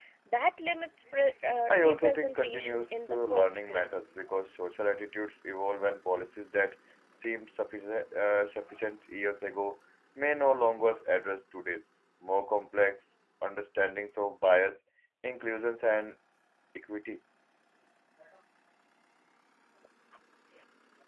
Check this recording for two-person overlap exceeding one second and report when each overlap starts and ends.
1.8-4.1

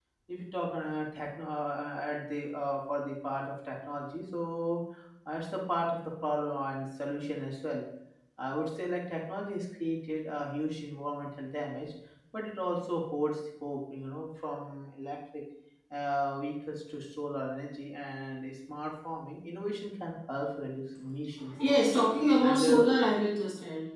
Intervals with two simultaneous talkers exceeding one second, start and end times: none

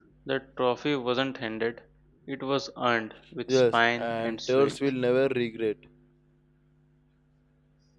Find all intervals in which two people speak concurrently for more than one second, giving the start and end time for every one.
3.5-4.7

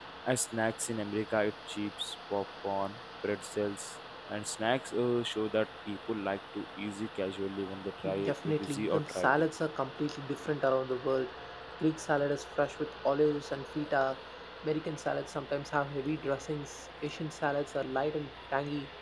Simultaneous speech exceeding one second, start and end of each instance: 8.2-9.4

